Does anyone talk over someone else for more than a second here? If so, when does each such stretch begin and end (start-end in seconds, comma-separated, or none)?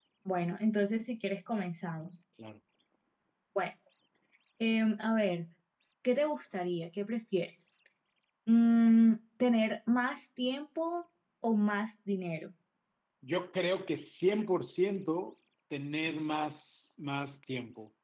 none